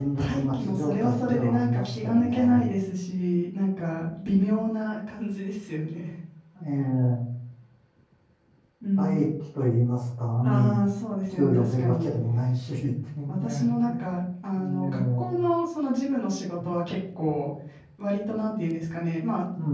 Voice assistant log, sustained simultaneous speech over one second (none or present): present